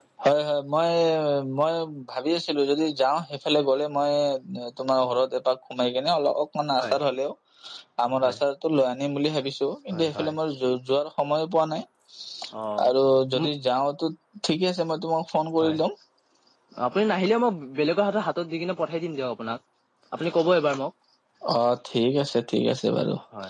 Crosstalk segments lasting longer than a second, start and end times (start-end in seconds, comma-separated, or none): none